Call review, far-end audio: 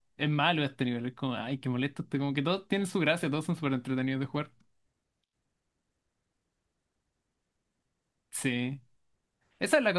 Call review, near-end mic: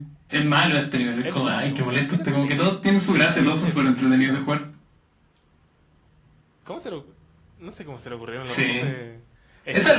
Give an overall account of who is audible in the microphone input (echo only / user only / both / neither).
both